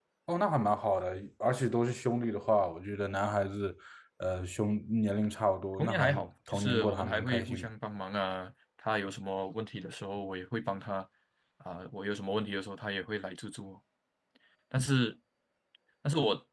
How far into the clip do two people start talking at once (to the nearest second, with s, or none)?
6 s